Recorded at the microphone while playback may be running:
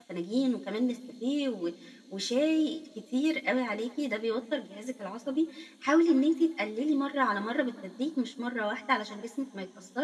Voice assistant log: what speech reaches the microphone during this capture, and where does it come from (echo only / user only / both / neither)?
user only